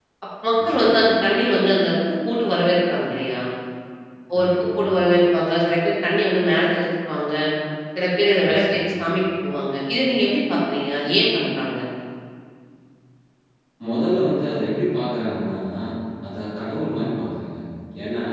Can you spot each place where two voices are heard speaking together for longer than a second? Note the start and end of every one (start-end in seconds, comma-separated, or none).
none